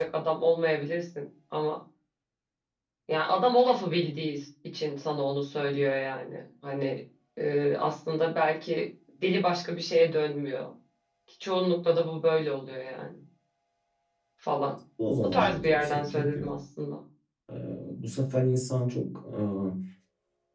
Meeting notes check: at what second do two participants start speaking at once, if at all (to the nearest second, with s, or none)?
15 s